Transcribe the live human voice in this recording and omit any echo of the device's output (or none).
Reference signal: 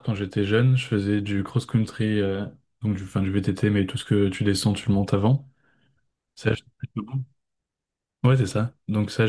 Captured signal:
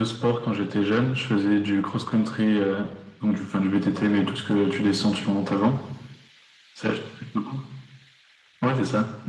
none